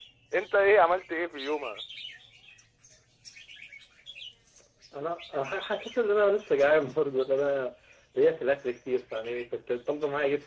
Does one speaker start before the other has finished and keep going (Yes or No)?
No